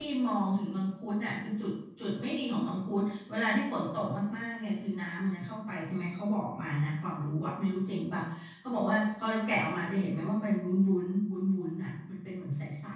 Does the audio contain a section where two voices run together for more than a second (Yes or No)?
No